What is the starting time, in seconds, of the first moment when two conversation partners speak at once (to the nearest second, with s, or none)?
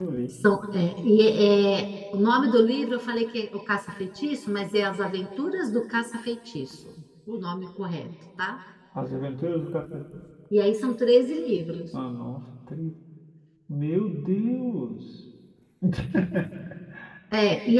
none